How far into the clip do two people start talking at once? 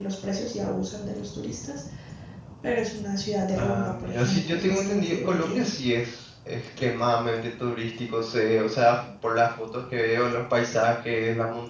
3.6 s

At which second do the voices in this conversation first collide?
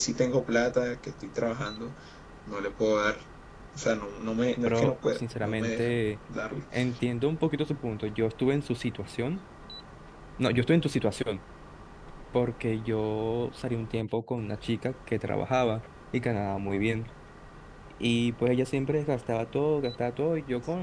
4.6 s

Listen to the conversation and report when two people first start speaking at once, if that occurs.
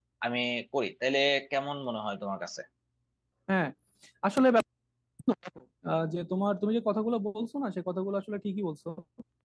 none

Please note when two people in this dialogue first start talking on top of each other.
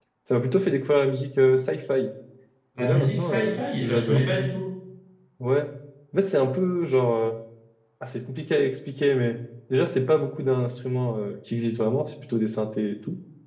2.8 s

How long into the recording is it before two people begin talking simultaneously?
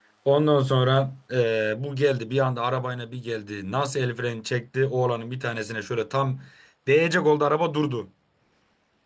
none

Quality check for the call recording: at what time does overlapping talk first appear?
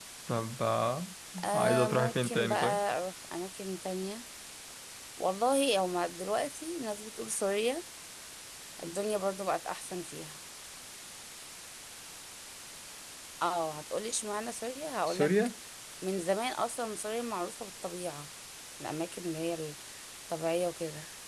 1.5 s

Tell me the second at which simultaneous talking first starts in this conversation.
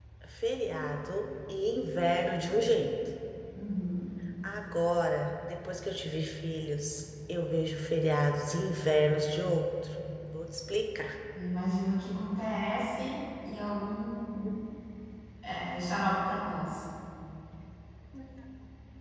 none

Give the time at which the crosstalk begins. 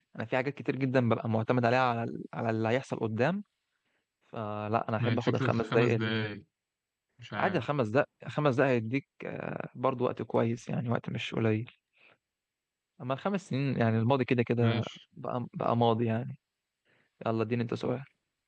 5.0 s

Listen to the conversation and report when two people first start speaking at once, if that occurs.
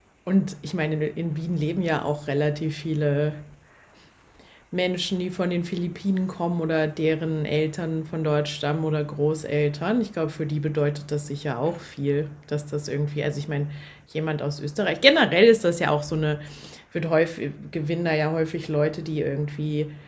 none

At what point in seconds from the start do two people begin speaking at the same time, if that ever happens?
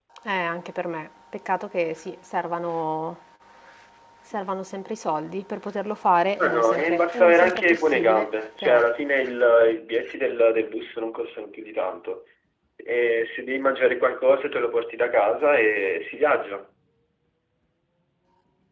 6.4 s

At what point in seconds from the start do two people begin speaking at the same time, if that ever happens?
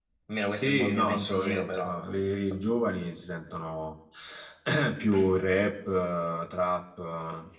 0.6 s

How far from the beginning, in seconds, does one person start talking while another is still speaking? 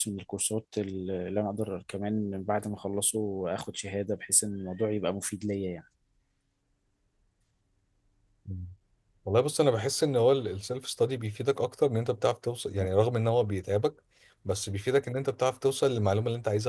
none

